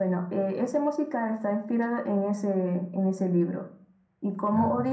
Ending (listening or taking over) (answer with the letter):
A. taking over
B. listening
B